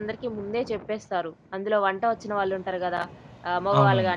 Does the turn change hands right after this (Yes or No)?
No